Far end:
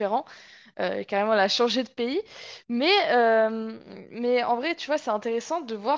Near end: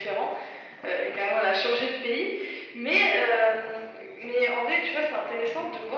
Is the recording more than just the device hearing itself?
No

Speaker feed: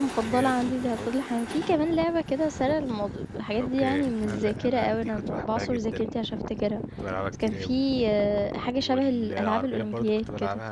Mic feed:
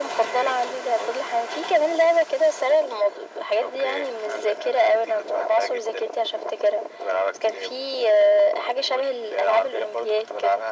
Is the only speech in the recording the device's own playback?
Yes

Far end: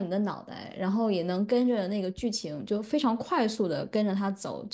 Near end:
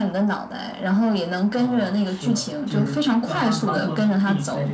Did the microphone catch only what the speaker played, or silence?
No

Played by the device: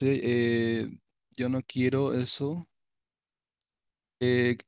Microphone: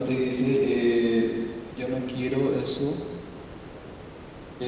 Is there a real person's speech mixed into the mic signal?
No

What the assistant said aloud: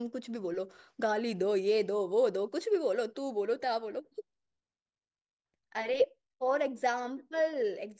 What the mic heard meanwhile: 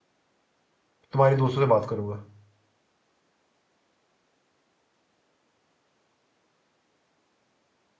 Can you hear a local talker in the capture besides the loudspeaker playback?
Yes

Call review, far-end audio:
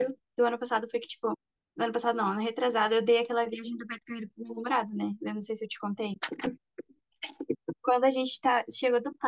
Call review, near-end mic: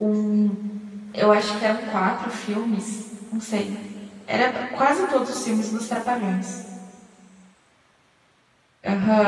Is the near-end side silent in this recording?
No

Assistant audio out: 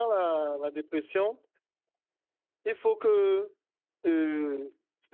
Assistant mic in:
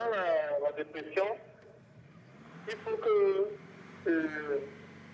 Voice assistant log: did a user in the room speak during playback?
No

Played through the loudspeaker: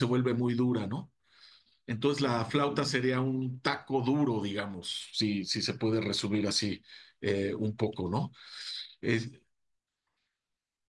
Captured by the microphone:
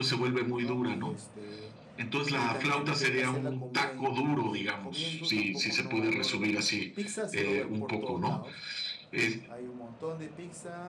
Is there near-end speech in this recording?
Yes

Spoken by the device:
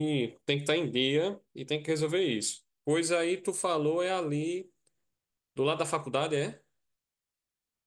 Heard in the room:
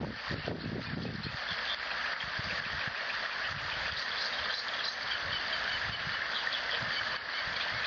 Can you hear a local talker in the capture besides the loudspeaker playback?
No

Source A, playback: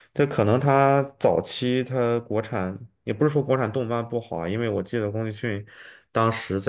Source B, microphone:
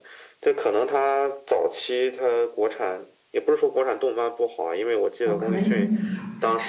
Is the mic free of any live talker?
No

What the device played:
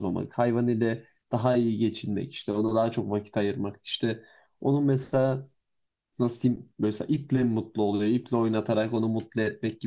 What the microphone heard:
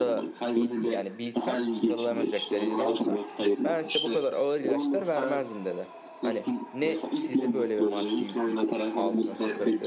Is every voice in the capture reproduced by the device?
No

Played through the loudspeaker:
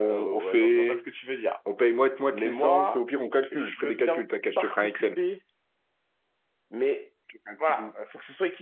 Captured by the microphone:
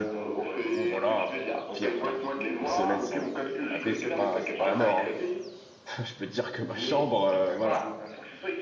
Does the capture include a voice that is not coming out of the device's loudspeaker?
Yes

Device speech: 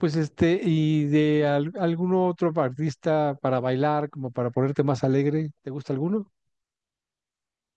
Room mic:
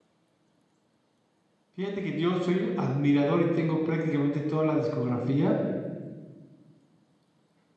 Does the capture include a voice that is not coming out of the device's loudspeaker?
Yes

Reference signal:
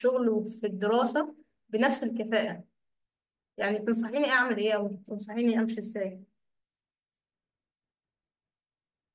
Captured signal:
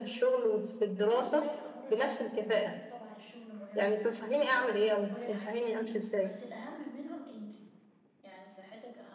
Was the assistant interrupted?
Yes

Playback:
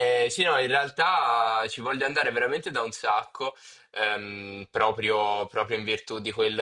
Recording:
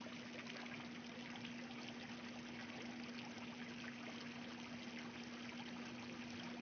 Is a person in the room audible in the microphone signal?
No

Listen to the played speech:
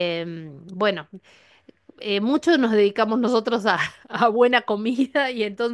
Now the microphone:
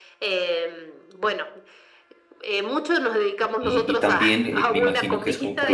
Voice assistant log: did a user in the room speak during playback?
Yes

